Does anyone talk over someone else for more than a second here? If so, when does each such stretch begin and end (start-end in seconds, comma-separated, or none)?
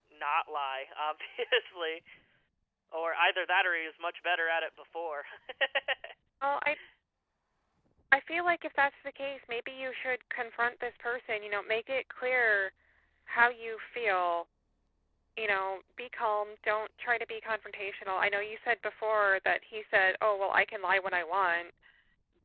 none